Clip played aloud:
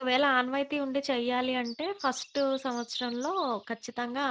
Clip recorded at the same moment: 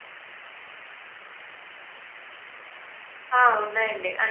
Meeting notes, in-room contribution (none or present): present